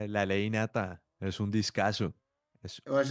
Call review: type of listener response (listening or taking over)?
taking over